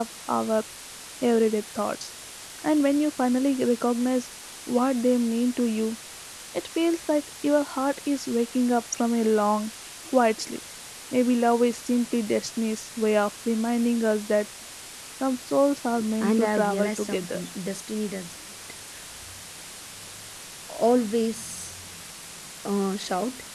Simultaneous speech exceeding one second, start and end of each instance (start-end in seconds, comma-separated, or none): 16.2-17.4